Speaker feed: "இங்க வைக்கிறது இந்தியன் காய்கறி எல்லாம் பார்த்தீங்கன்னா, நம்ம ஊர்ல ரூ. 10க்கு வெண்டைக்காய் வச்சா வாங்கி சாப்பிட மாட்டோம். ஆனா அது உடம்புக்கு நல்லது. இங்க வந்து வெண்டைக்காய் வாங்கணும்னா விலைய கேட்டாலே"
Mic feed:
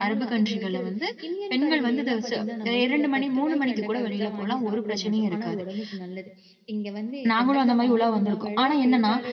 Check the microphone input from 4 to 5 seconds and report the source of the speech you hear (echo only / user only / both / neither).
both